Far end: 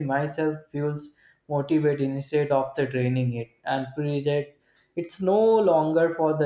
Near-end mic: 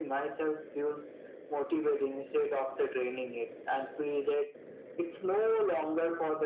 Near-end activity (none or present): none